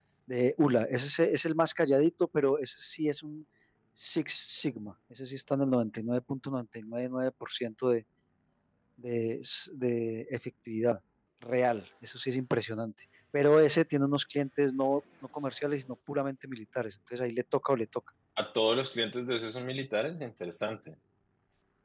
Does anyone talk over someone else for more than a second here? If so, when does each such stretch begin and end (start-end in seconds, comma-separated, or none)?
none